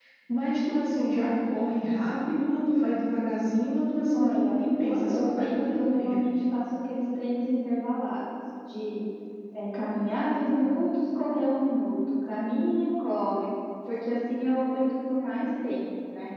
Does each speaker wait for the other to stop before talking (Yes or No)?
No